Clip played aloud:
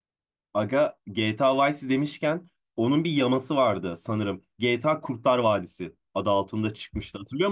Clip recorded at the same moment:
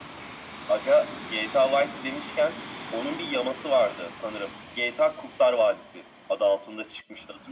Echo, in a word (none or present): present